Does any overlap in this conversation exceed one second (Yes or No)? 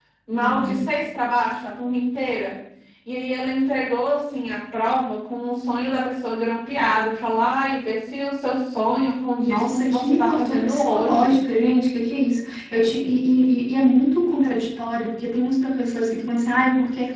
Yes